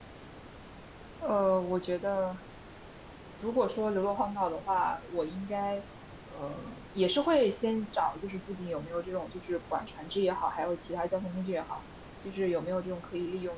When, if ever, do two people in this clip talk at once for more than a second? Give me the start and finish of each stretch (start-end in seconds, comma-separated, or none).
none